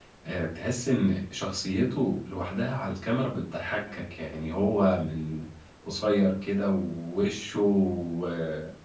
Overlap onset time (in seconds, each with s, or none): none